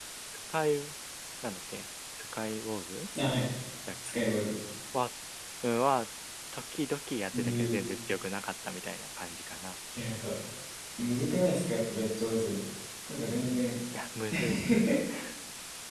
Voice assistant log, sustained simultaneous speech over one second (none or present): none